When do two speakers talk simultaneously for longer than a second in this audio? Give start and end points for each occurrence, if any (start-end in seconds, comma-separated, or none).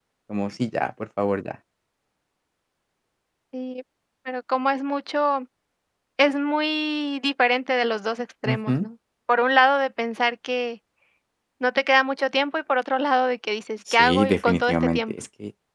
13.9-15.1